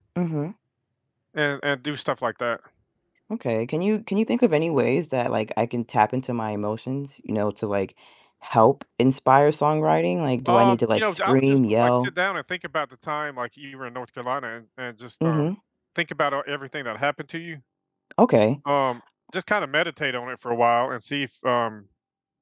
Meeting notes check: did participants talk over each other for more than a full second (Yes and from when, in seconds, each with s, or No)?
Yes, from 10.5 s